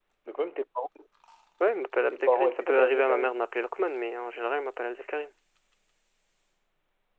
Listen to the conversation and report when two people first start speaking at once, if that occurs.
2.1 s

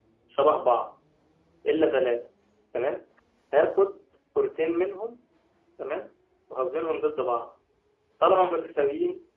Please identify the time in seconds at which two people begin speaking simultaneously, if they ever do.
none

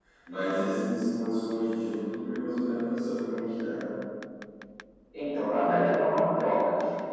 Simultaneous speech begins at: none

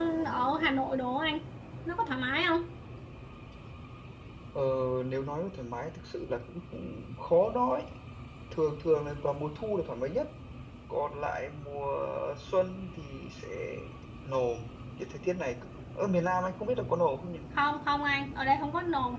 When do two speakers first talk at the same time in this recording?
none

